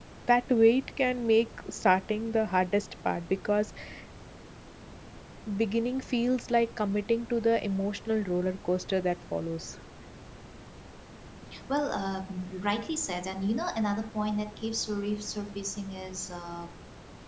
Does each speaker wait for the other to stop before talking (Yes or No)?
Yes